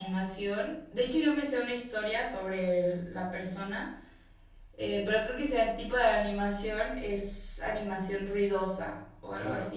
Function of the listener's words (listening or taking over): taking over